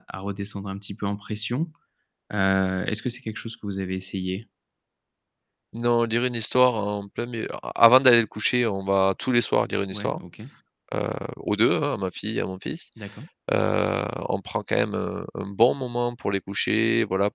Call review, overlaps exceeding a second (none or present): none